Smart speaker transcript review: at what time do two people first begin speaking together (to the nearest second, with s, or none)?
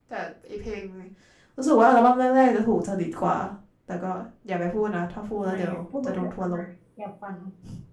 5 s